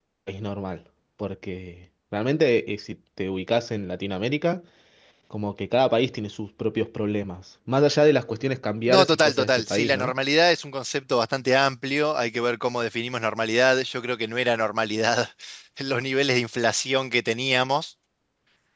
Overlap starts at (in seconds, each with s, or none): 8.9 s